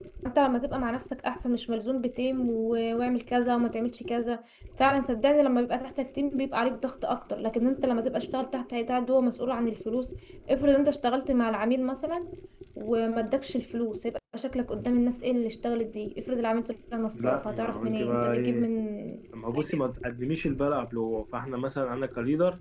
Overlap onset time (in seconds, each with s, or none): 17.1 s